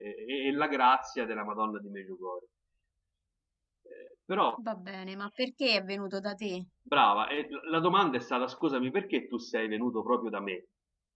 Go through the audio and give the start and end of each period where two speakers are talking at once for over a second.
none

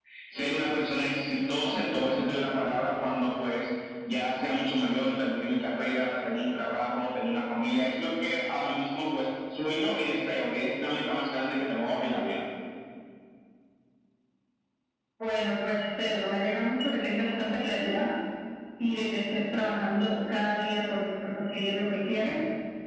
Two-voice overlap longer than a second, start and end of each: none

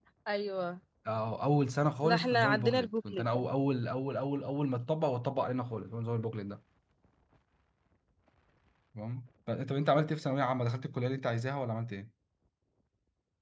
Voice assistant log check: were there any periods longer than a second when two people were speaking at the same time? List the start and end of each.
2.0-3.4

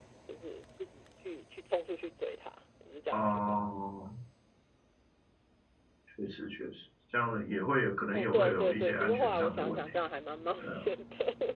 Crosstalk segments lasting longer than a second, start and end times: 8.1-10.0

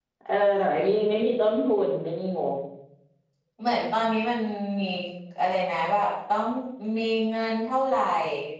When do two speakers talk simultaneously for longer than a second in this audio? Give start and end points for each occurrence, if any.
none

